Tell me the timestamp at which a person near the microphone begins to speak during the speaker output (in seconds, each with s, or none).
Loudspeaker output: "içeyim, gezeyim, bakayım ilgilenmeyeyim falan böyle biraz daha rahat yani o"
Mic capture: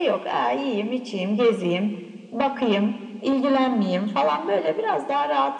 none